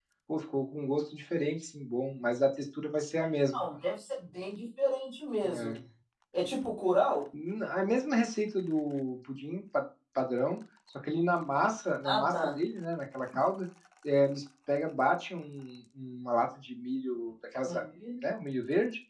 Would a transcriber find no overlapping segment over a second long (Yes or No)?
Yes